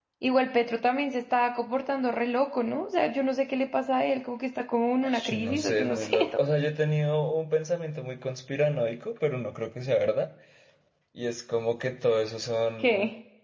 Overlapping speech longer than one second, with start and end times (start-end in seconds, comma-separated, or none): 5.0-6.4